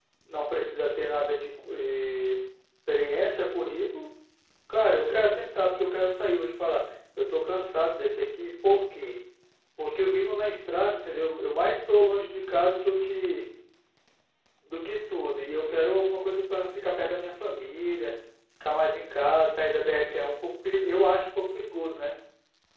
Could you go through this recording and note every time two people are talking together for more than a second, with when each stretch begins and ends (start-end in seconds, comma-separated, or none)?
none